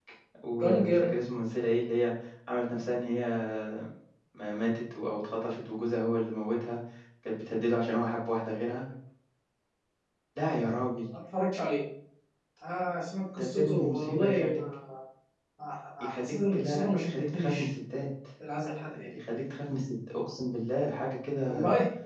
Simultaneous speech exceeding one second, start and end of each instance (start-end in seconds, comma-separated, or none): 13.4-14.6, 16.0-17.7